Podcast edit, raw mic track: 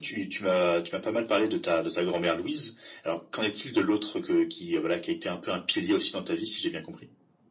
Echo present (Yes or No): Yes